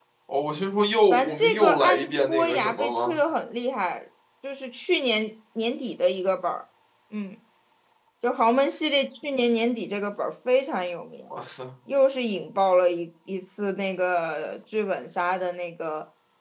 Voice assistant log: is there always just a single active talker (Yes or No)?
No